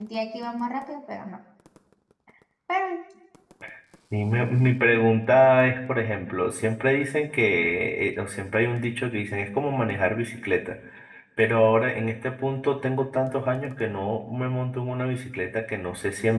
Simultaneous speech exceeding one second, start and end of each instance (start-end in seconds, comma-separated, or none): none